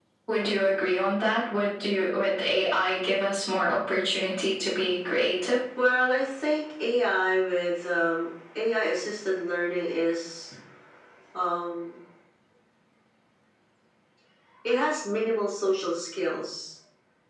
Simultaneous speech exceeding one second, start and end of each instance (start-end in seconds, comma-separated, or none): none